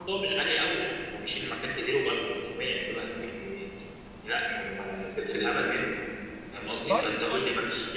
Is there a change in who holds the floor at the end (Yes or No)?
No